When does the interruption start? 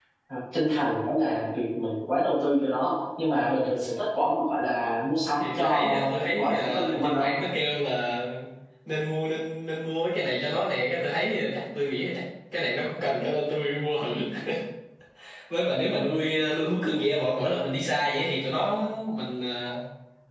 5.3 s

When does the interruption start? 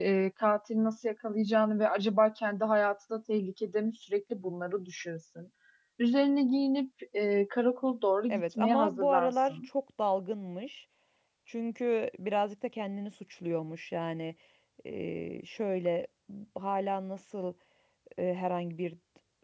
8.3 s

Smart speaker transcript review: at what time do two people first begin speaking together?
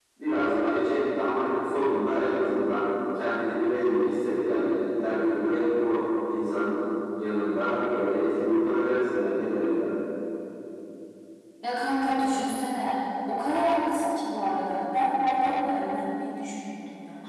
none

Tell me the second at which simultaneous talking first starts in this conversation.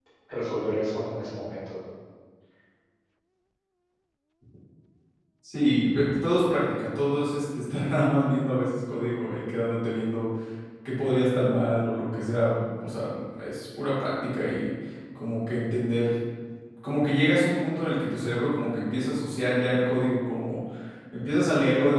none

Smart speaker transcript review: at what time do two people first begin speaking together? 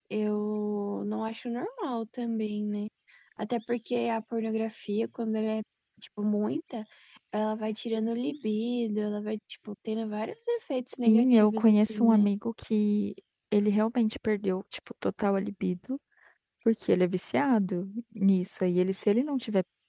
10.9 s

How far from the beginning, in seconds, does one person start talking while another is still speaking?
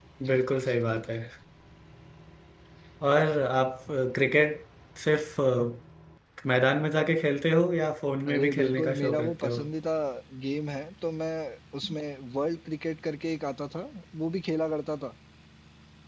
8.3 s

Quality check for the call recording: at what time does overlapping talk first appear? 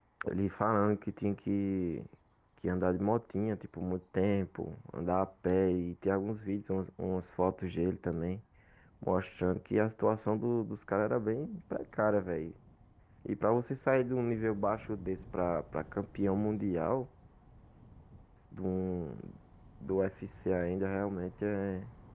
none

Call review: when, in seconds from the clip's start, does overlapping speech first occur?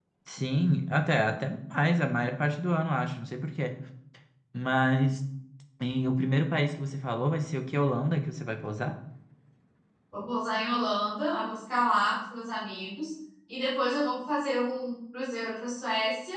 none

